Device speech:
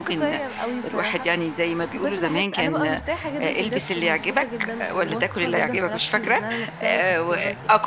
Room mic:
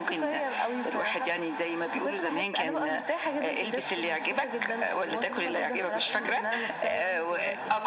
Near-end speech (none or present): present